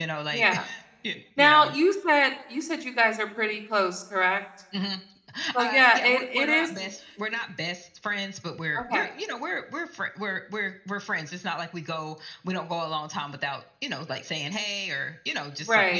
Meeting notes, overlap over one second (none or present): present